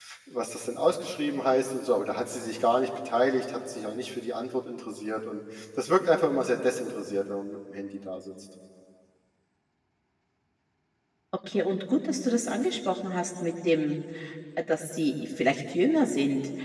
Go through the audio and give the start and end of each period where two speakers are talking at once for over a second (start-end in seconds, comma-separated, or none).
none